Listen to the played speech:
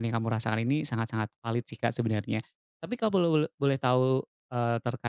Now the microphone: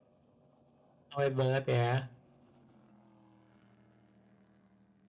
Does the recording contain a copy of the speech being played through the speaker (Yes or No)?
No